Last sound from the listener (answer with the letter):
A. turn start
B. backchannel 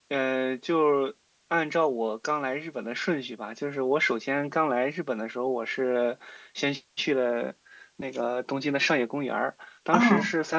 B